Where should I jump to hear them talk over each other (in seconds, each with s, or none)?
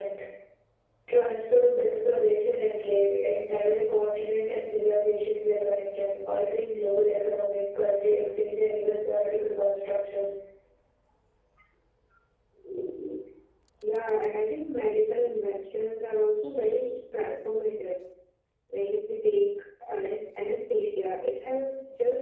none